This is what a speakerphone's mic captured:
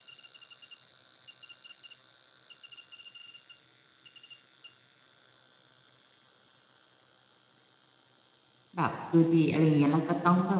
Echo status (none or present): none